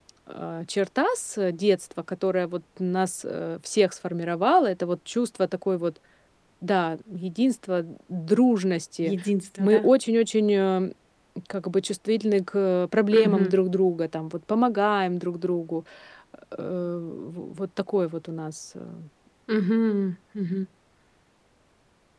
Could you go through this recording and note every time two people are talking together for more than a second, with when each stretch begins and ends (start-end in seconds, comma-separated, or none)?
none